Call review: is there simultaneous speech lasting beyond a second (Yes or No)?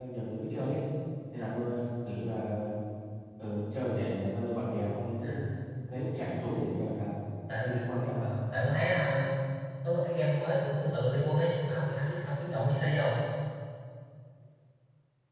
No